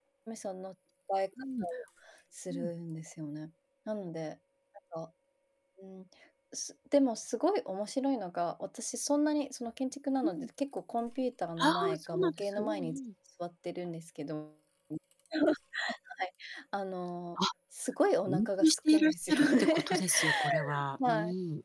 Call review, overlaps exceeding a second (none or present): present